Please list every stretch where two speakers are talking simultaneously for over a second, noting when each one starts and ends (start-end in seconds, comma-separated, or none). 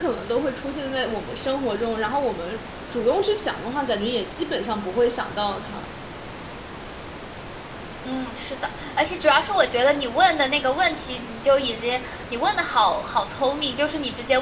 none